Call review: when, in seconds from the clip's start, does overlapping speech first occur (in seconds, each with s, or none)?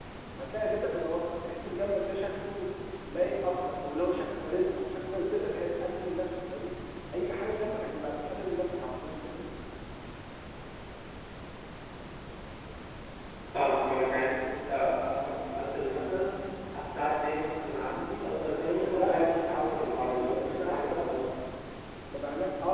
18.6 s